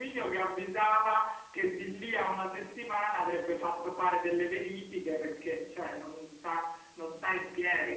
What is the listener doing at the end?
listening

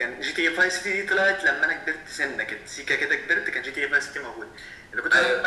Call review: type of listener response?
listening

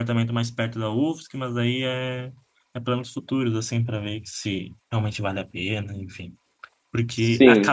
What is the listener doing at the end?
listening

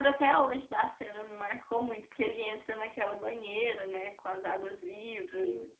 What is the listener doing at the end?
listening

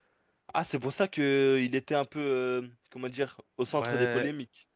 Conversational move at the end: taking over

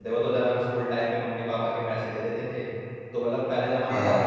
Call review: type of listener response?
listening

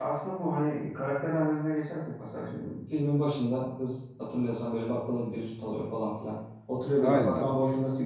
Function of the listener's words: listening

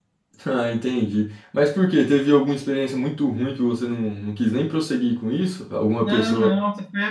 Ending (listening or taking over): taking over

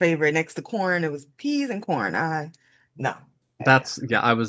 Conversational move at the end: taking over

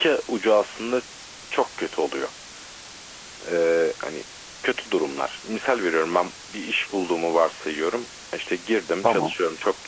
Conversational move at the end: listening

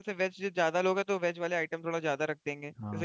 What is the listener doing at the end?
taking over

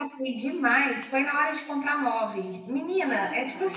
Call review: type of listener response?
listening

